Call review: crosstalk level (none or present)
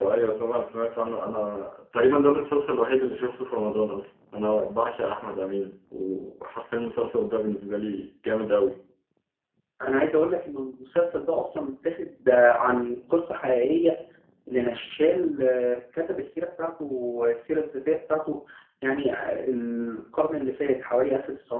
none